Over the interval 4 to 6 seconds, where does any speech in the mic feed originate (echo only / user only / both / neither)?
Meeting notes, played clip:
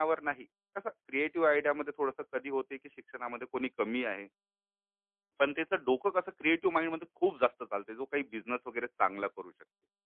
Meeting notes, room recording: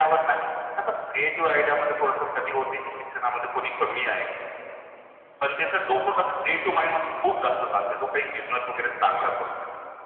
echo only